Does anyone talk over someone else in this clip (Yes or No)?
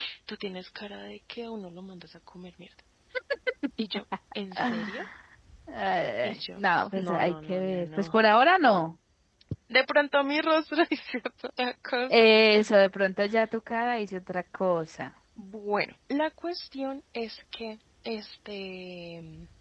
Yes